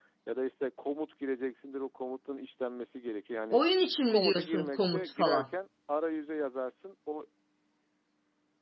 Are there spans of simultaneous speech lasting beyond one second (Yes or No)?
Yes